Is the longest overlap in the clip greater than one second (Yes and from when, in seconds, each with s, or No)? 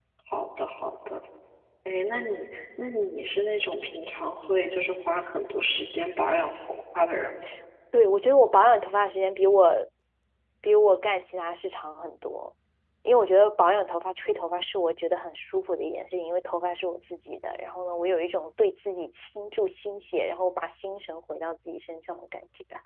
No